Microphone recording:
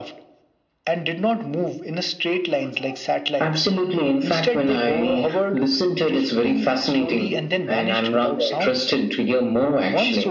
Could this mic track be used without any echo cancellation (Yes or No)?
No